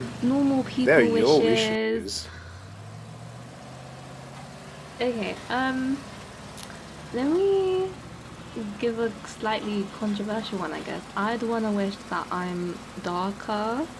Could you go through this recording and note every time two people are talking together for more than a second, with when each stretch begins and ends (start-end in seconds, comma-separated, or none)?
0.8-2.0